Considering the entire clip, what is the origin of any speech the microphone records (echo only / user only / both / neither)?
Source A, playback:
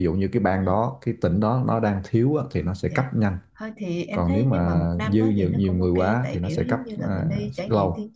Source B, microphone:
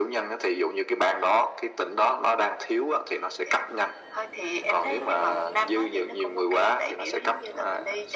echo only